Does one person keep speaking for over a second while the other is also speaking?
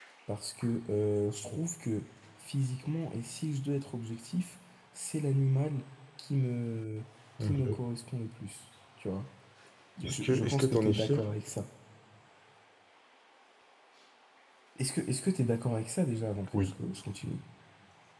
Yes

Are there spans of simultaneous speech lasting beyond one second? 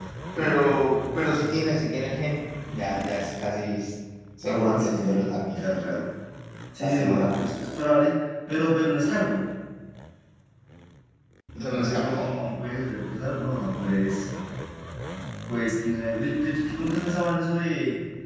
Yes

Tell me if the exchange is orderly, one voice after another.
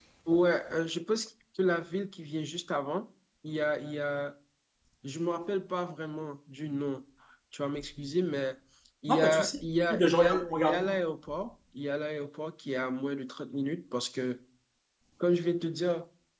No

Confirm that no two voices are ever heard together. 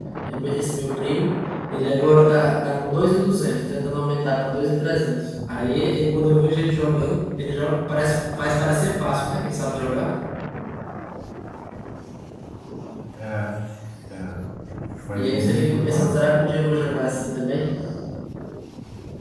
No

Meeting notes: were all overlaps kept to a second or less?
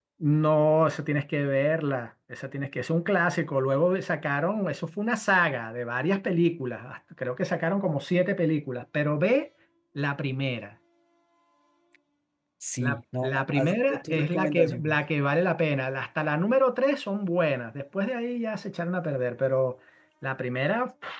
No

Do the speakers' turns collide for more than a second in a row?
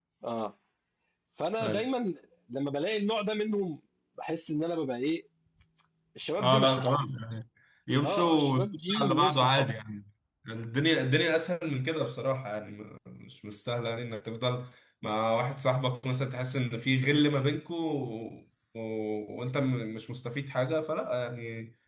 Yes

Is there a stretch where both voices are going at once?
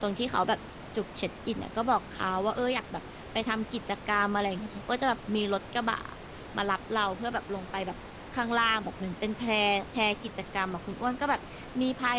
No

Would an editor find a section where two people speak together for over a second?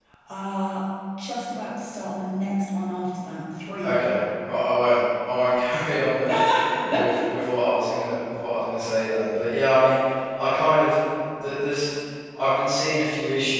No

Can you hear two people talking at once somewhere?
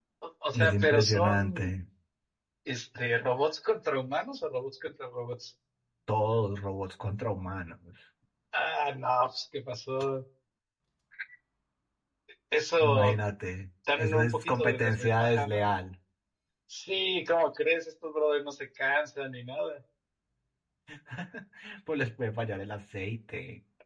Yes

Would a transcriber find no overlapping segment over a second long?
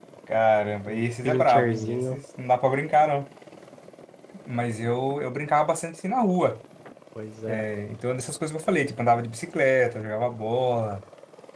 No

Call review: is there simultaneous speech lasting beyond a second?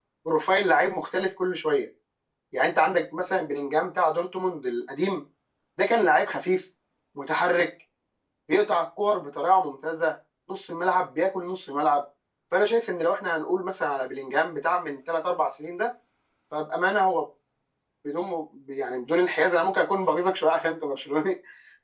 No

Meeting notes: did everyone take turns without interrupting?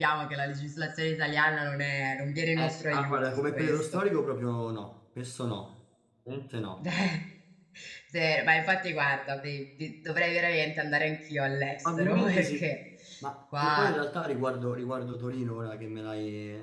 No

